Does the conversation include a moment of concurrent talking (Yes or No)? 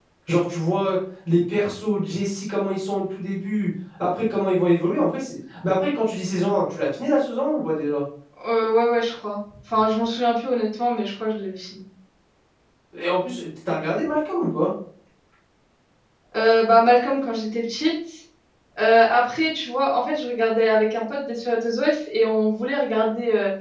No